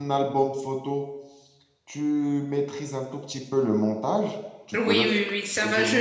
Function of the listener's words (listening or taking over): taking over